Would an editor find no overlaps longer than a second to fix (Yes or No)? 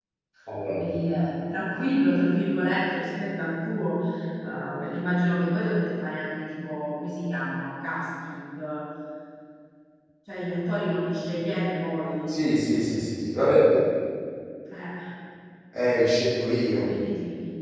Yes